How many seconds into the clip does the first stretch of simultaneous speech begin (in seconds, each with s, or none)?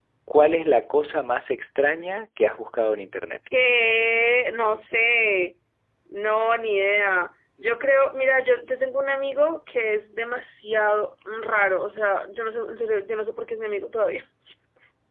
none